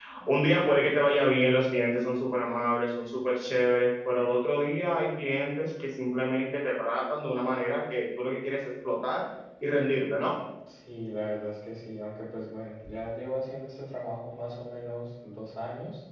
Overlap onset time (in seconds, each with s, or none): none